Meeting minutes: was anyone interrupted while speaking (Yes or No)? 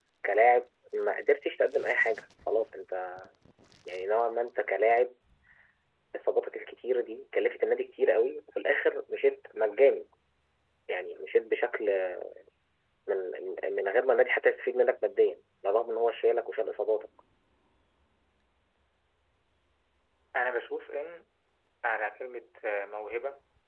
No